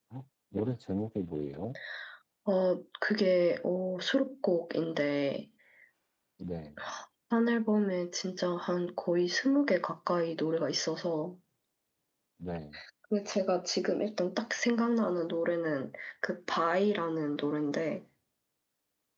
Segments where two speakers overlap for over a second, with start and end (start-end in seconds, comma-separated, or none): none